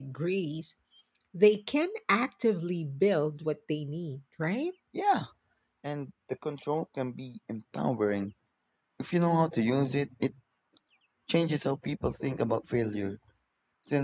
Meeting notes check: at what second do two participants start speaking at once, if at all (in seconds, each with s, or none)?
none